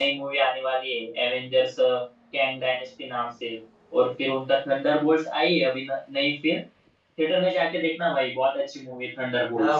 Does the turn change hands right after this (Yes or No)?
Yes